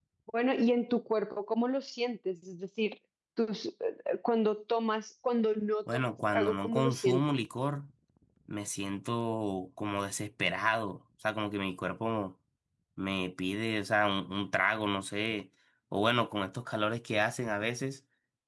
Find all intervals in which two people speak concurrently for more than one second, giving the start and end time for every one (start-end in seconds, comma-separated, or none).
5.9-7.2